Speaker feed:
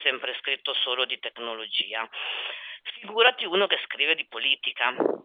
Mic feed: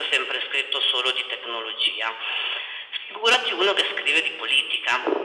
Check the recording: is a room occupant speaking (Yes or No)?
No